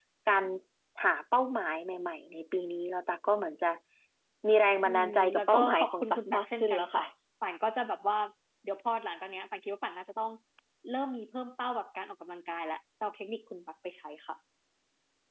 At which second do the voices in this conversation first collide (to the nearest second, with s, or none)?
5 s